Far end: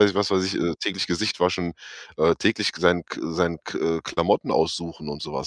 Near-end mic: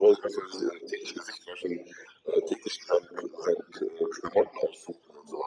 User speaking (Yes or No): No